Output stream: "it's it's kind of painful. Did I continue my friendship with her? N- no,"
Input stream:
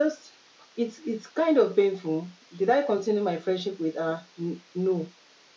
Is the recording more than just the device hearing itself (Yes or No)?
No